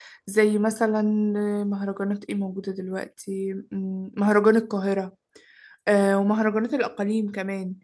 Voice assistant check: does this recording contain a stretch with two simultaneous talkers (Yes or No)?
No